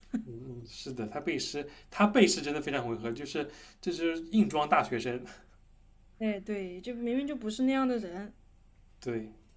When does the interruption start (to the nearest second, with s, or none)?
none